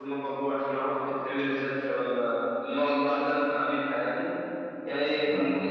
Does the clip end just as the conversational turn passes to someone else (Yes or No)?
No